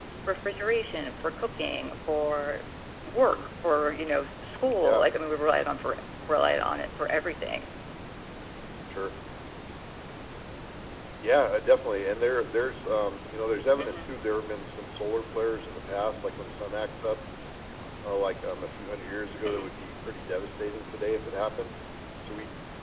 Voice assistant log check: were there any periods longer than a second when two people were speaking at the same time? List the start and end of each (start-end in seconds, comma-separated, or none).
none